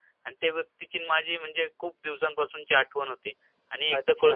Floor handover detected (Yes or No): No